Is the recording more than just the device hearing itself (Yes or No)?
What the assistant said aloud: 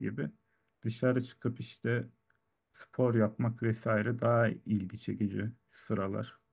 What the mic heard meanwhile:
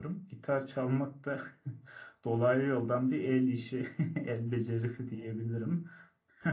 Yes